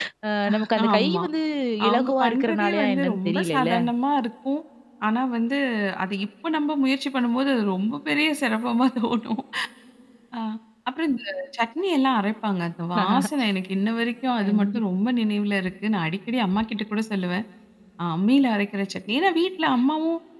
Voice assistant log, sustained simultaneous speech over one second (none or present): present